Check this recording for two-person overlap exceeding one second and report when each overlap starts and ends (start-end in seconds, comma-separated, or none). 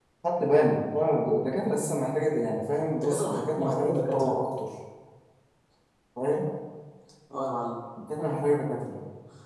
3.0-4.4